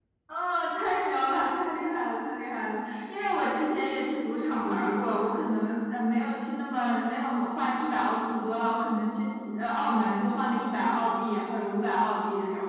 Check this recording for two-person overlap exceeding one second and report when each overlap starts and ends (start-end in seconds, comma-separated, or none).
none